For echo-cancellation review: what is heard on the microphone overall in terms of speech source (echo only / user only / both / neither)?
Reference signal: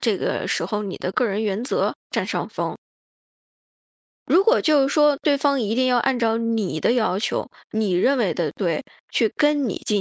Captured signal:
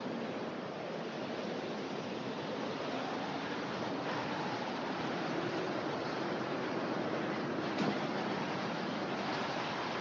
neither